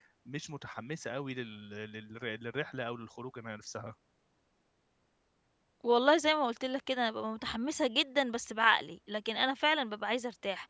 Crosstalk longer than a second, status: none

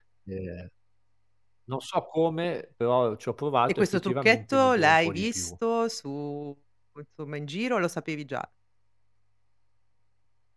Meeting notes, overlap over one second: present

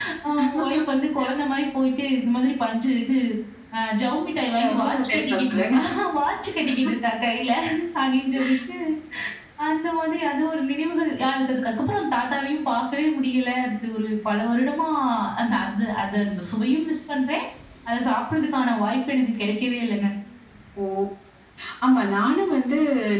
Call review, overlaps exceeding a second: present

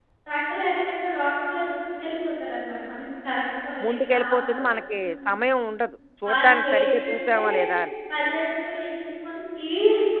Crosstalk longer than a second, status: present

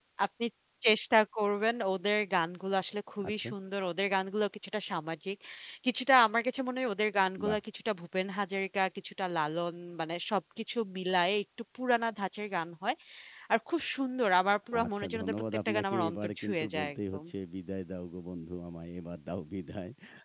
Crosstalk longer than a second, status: present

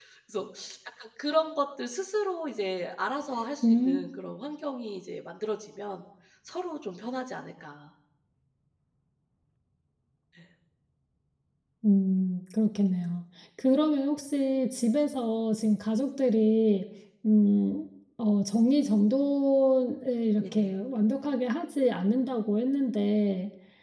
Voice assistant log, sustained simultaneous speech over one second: none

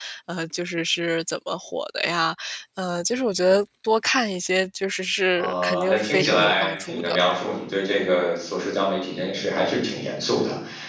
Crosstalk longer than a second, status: present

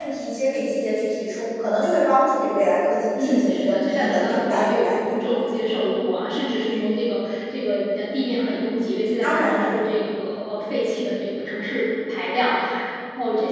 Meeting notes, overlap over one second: present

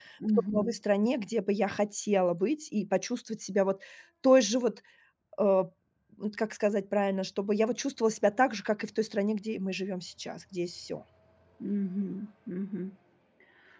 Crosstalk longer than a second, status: none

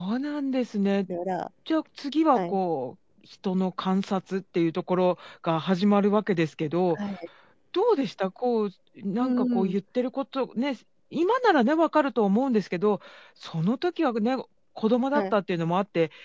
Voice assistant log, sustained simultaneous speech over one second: none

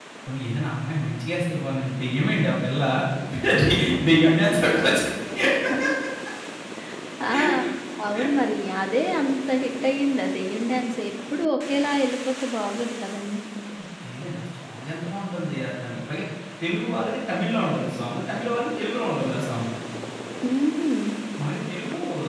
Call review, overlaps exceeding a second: none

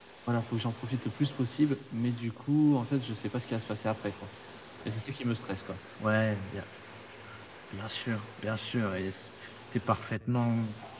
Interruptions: none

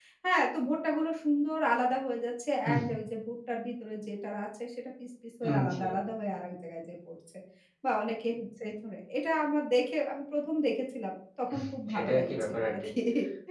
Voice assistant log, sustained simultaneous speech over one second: present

